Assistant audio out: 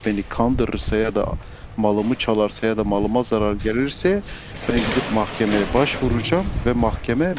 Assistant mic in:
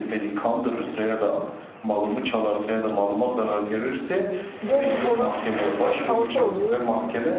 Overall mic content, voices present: both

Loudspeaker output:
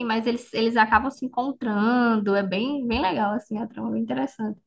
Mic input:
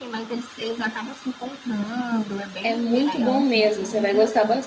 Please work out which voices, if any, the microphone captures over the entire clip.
both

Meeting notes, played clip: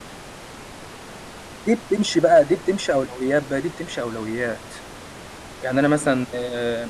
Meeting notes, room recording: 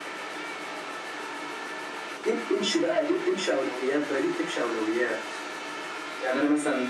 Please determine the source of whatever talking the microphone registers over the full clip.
echo only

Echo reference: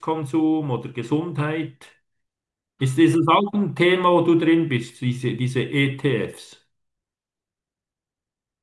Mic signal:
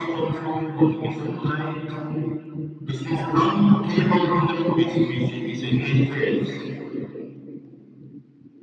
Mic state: echo only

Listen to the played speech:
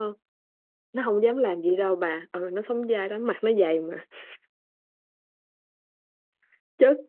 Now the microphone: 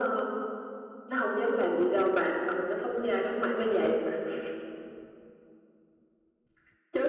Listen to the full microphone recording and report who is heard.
echo only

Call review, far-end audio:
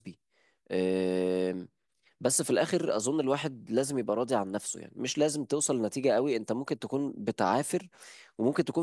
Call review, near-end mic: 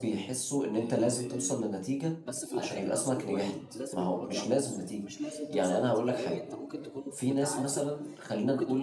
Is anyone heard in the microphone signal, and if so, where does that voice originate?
both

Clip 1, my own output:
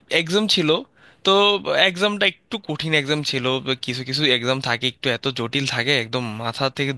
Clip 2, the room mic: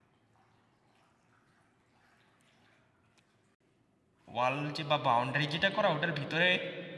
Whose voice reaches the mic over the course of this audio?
user only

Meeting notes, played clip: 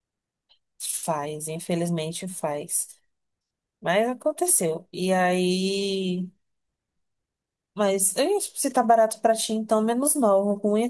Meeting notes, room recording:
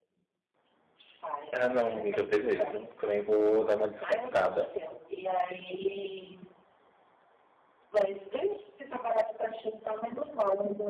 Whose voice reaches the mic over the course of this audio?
both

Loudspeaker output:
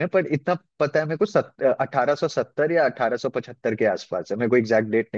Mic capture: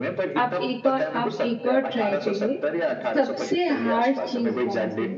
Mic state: both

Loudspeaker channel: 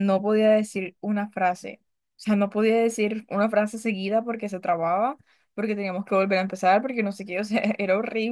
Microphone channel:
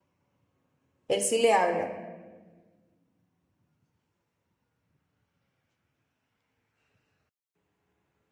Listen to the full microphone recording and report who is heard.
user only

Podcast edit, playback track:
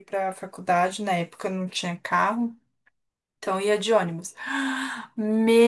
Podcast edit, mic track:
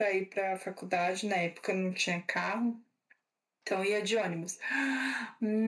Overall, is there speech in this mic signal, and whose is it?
echo only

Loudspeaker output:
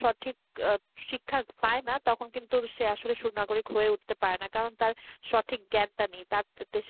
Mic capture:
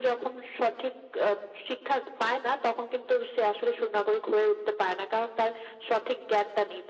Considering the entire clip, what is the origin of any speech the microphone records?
echo only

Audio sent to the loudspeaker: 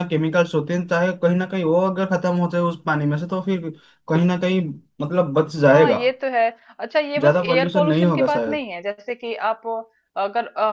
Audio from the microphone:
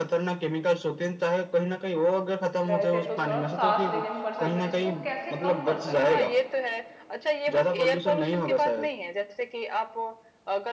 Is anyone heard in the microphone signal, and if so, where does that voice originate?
both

